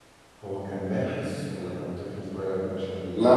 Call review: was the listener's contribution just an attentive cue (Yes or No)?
No